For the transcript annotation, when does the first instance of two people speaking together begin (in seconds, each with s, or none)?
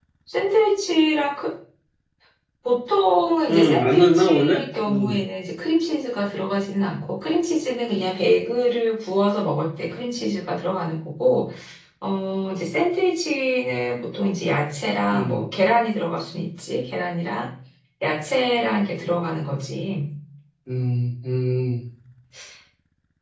3.5 s